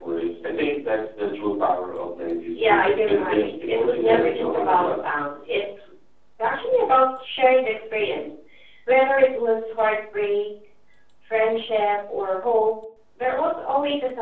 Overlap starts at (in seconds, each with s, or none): 2.5 s